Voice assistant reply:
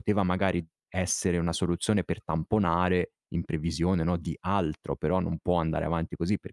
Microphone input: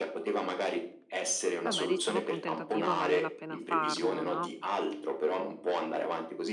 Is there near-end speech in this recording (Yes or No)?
Yes